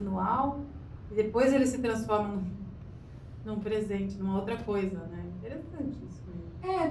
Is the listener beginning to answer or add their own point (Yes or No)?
Yes